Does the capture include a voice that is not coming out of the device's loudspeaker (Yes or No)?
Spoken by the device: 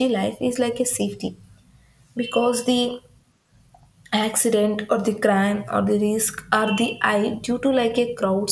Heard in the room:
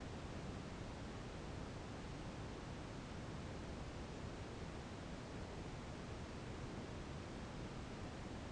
No